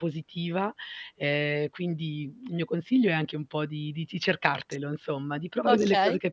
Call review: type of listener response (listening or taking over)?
listening